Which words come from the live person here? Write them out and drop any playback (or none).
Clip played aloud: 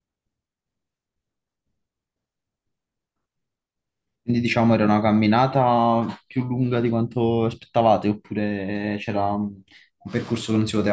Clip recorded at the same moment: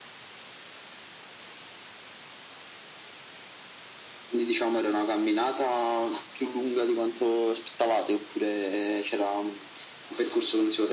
none